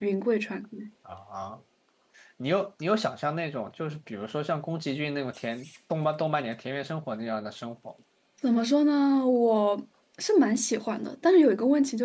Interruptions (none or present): none